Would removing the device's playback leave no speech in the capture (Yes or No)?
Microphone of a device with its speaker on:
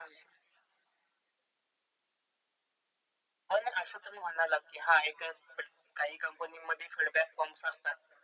Yes